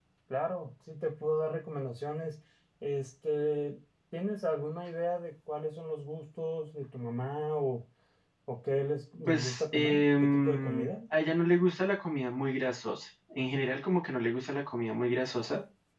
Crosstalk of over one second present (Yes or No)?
Yes